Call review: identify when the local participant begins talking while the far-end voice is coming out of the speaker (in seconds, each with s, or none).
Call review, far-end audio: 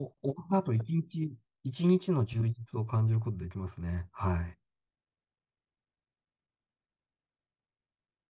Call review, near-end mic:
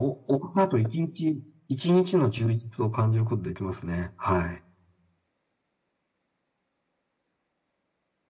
none